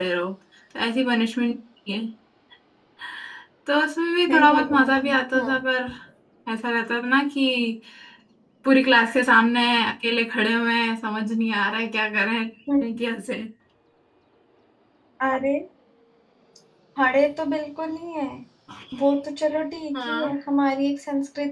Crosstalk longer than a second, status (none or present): present